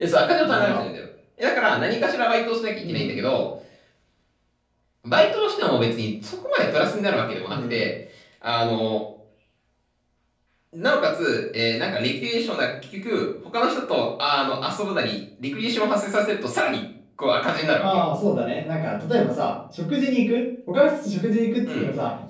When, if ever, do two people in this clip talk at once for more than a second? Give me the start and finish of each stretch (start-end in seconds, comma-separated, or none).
none